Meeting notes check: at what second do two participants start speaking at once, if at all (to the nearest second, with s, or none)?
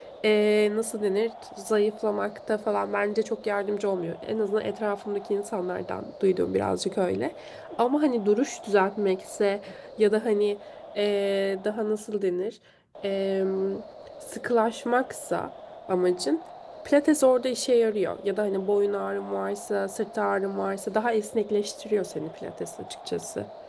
none